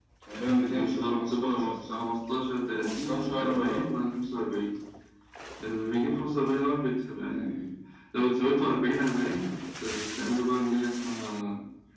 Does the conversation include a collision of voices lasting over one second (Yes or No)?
Yes